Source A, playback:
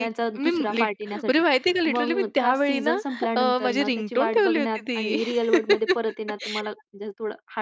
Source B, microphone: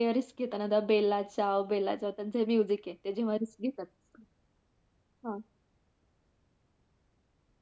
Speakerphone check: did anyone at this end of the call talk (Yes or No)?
Yes